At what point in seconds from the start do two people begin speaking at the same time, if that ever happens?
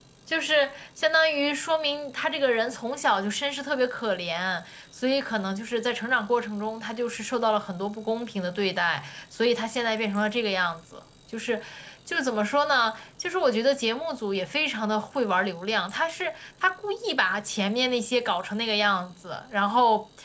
none

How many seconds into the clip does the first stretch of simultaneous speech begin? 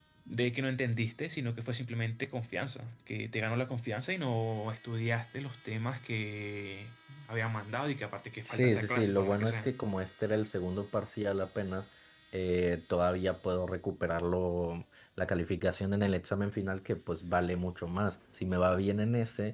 8.5 s

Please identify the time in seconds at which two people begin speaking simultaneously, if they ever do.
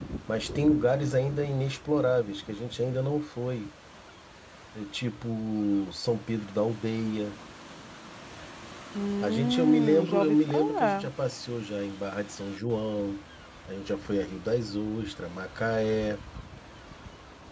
9.2 s

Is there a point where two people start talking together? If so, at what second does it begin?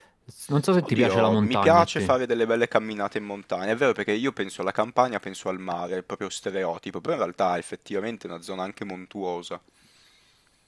0.9 s

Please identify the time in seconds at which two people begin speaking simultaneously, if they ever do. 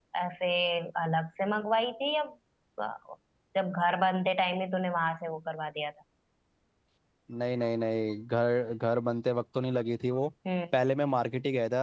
none

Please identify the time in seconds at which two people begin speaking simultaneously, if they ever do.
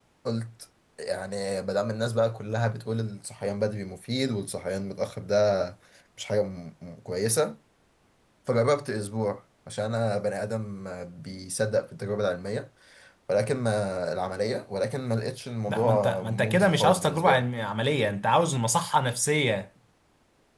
15.7 s

